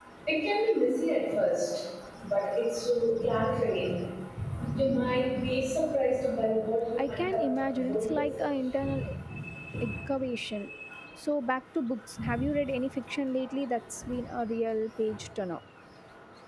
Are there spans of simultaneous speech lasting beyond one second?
Yes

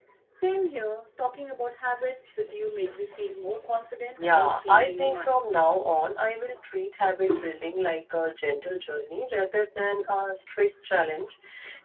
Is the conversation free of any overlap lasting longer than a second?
No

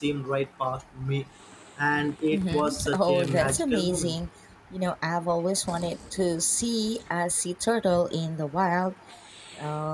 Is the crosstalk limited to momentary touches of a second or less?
No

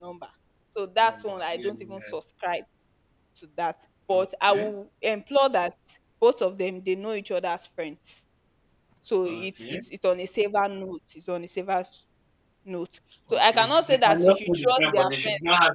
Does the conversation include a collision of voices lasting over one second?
Yes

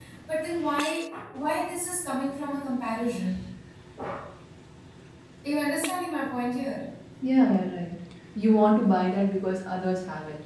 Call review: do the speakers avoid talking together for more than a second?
Yes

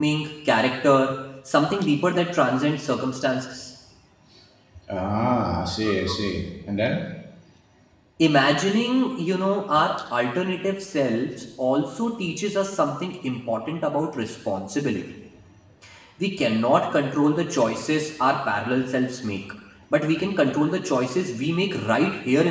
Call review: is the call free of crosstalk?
Yes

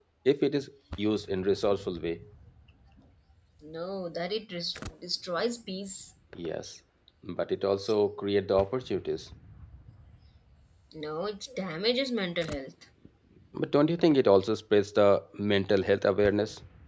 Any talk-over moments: No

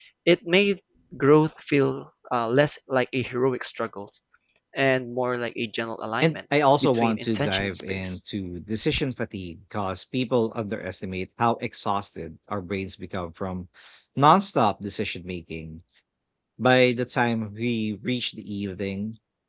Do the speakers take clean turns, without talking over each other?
No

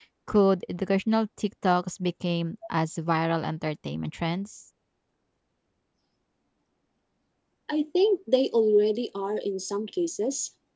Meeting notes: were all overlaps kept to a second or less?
Yes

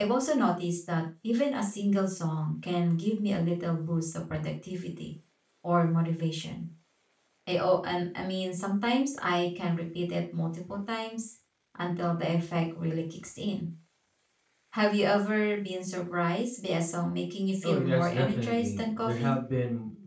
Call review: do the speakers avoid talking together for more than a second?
No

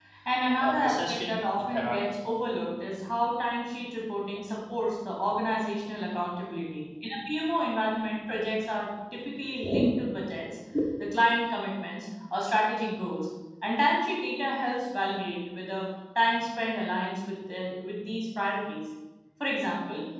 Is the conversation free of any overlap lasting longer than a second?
No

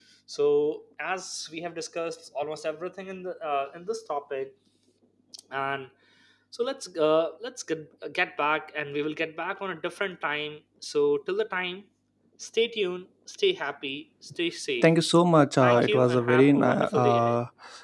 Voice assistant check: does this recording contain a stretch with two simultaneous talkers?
Yes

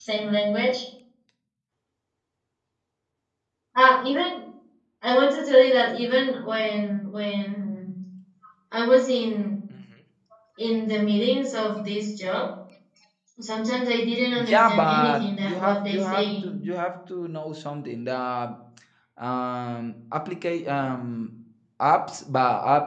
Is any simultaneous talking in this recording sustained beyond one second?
Yes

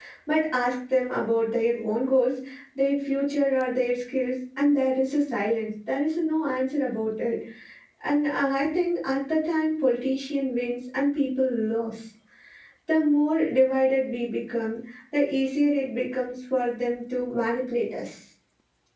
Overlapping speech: No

